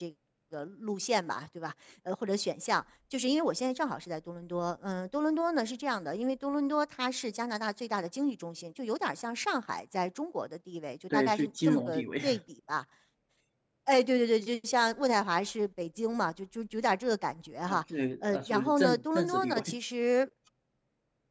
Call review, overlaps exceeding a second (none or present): present